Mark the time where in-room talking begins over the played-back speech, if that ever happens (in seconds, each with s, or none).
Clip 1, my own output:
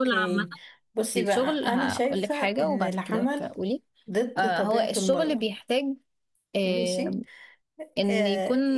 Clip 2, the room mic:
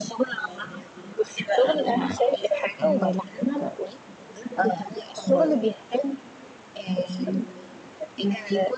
none